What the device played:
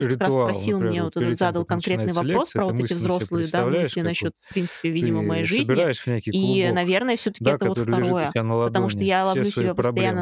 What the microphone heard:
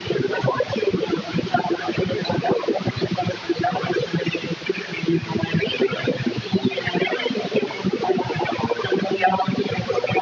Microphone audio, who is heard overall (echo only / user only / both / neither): echo only